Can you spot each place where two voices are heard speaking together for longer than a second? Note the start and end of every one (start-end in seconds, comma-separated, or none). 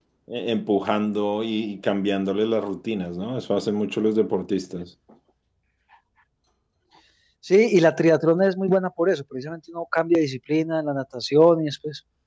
none